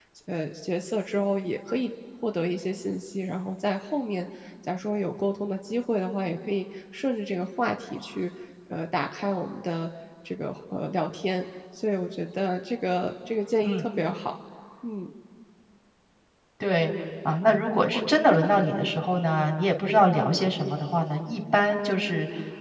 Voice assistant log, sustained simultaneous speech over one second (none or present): none